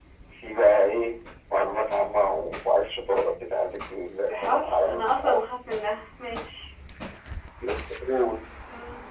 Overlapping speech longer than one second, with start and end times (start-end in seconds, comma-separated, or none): 4.2-5.5